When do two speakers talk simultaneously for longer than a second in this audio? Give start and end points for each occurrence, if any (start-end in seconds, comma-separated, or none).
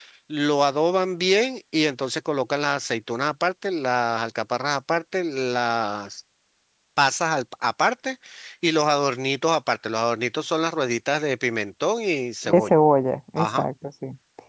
none